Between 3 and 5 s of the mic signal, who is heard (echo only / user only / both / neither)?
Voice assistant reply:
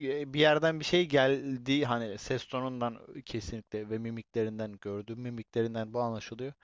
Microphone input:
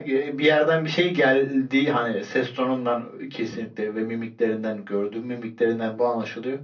echo only